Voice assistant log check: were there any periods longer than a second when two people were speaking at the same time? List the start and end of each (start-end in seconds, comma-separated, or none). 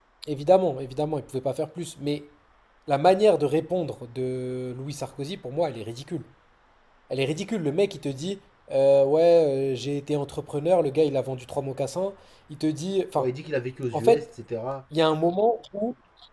none